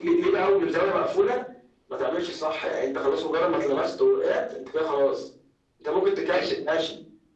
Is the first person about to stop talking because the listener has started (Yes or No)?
No